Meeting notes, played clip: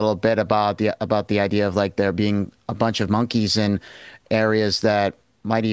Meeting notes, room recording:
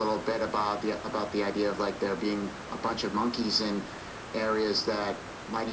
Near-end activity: none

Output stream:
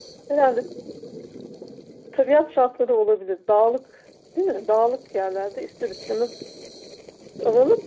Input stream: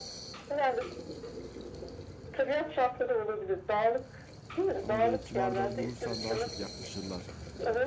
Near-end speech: present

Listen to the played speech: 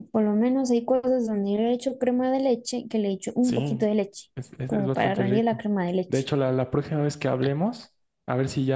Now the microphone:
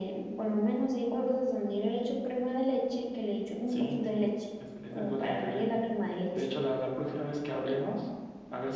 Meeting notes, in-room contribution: none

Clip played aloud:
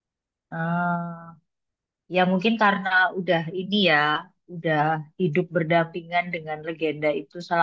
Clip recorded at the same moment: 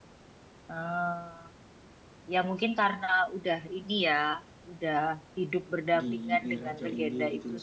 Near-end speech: present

